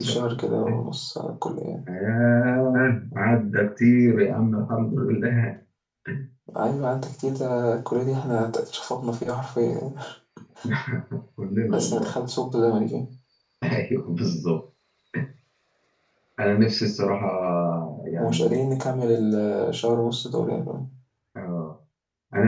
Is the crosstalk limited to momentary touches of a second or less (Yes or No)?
Yes